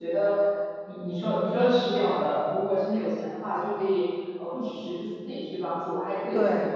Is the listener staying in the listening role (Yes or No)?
Yes